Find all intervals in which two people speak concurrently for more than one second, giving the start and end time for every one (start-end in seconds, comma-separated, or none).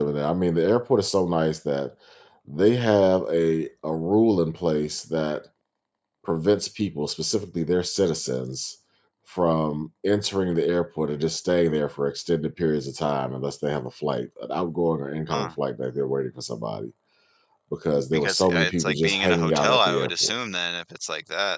18.1-20.3